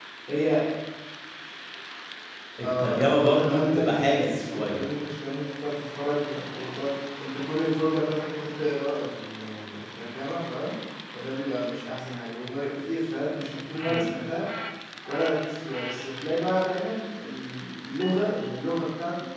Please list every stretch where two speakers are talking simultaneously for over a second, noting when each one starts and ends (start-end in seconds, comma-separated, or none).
2.6-4.8